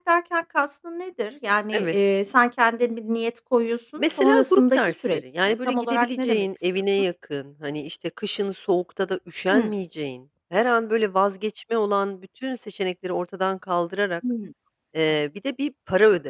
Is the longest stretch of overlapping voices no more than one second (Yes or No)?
No